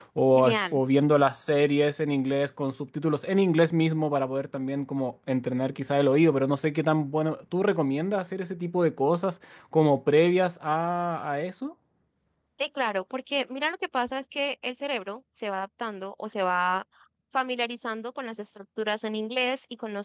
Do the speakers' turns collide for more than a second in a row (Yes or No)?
No